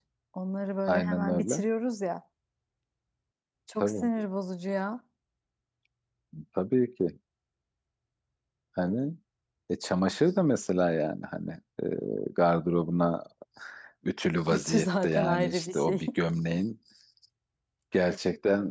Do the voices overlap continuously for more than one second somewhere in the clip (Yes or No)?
Yes